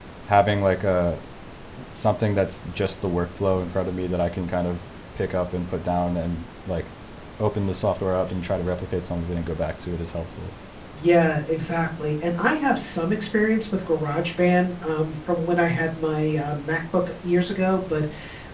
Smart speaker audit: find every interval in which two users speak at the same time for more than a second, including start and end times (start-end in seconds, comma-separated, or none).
none